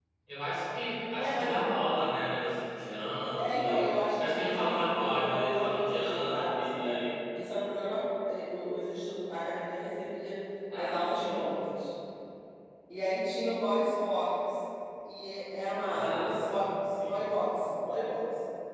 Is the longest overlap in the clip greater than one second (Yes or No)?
Yes